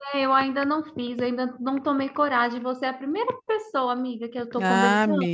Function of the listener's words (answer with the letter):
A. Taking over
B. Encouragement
A